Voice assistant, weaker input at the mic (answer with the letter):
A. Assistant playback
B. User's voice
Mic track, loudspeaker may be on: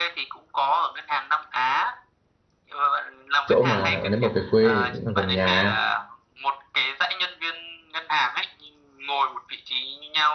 A